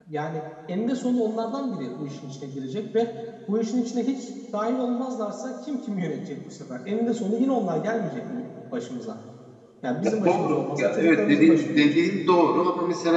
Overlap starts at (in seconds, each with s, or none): 10.2 s